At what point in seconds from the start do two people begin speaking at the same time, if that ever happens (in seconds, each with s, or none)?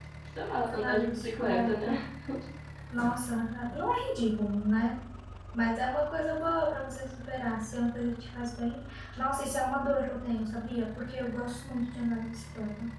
0.7 s